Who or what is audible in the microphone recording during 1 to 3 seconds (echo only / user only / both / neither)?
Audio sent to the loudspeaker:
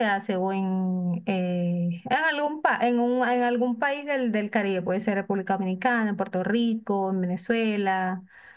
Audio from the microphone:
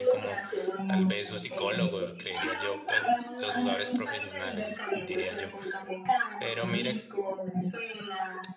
both